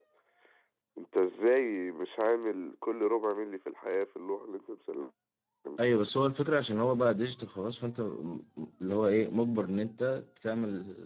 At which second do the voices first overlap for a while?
none

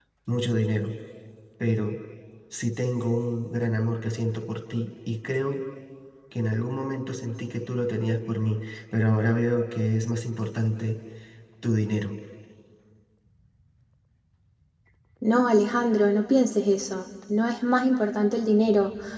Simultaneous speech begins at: none

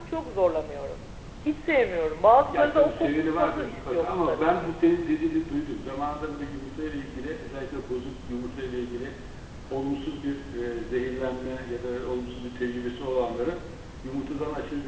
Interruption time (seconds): 2 s

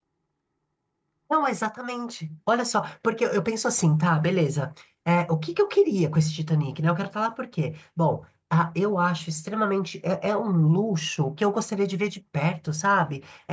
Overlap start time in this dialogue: none

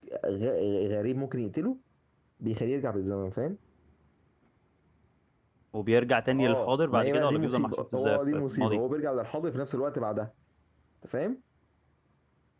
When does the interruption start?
6 s

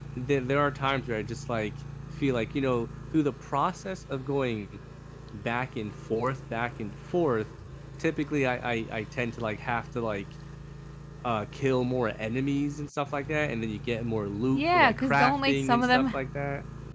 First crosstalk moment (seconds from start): 15 s

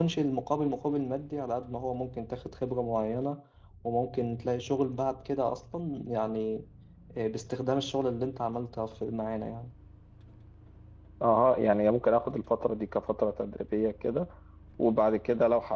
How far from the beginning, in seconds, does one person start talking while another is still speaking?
none

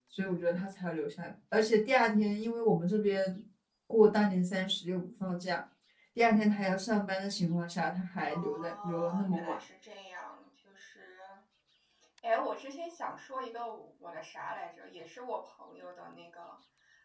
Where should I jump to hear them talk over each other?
8 s

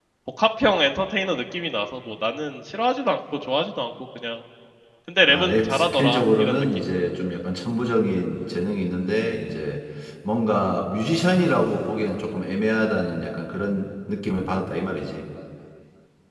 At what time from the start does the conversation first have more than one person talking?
5 s

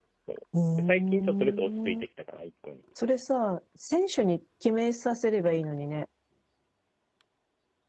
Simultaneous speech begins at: 1 s

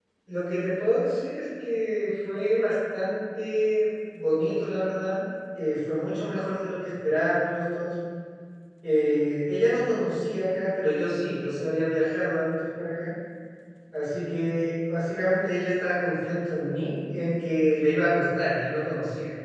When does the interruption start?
none

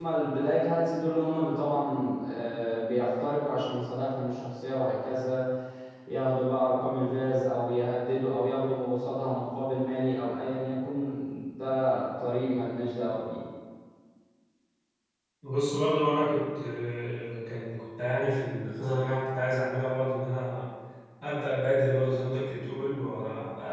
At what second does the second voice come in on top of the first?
none

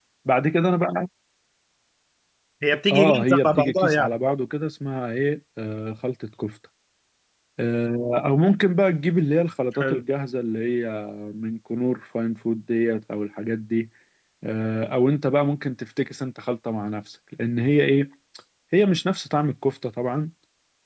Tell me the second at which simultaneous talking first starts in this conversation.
3 s

